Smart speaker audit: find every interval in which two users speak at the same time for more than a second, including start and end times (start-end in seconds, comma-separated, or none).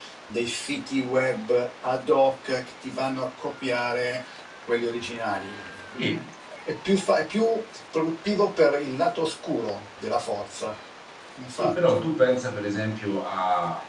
none